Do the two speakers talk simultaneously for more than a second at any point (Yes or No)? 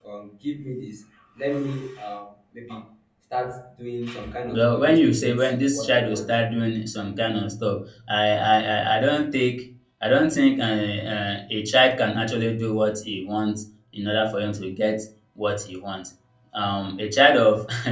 Yes